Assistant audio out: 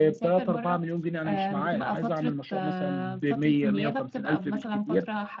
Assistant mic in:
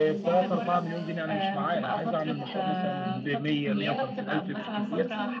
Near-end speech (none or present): present